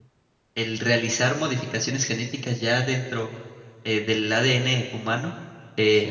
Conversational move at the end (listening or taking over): listening